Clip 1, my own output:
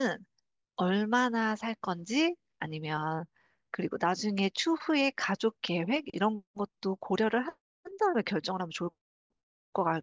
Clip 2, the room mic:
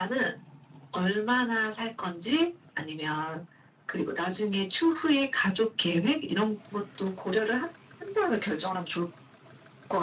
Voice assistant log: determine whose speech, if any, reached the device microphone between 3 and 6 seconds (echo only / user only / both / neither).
echo only